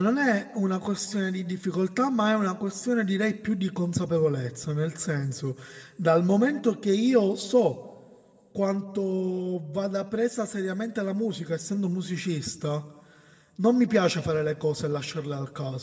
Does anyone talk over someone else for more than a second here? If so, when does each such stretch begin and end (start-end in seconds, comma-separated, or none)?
none